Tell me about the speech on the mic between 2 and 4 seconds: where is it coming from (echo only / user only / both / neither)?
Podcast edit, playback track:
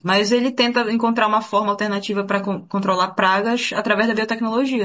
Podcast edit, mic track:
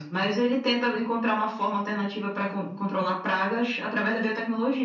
echo only